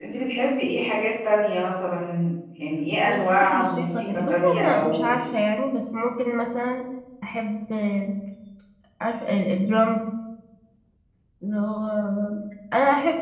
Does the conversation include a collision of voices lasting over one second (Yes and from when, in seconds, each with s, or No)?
Yes, from 3.1 s